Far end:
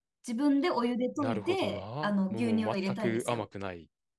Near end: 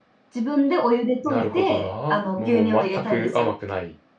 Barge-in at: none

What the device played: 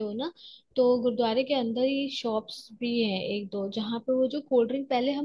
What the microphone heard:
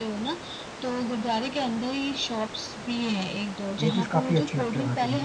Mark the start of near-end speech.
3.8 s

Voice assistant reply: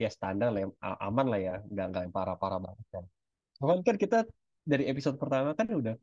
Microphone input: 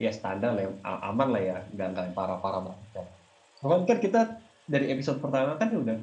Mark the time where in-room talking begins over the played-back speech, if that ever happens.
none

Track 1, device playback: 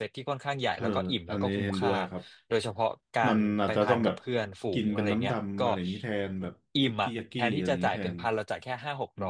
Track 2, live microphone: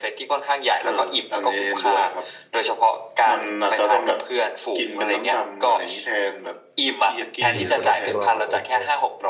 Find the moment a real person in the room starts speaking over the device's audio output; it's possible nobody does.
7.4 s

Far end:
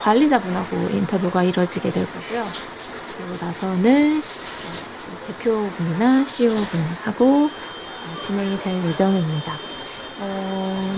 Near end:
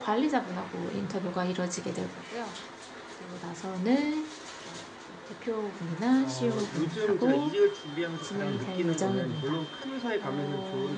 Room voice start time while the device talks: 6.0 s

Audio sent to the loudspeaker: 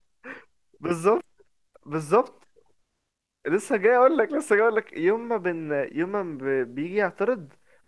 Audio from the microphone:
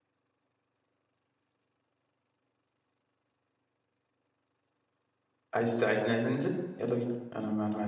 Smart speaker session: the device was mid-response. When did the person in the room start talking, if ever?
5.5 s

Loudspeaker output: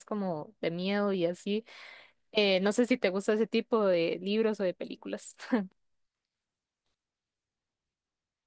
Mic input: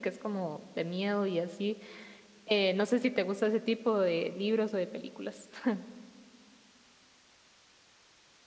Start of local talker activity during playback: none

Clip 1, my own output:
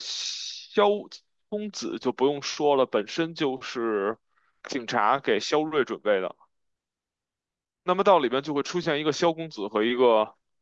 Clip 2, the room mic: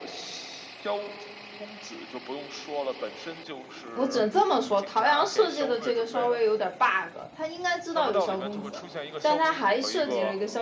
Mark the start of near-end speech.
3.9 s

